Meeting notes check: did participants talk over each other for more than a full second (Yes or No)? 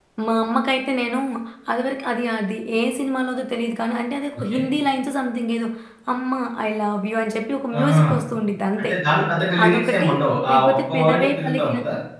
Yes